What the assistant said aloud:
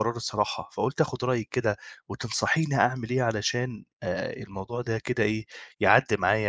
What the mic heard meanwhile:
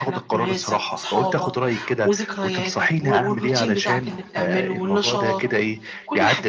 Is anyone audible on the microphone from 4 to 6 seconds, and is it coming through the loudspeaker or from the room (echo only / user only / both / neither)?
both